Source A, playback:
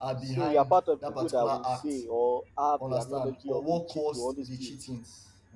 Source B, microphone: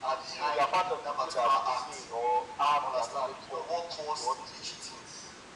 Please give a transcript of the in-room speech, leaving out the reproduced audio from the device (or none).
none